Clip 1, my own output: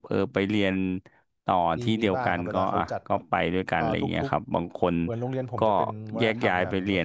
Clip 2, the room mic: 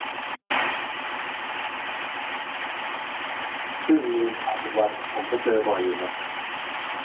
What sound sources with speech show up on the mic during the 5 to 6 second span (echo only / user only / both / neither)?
user only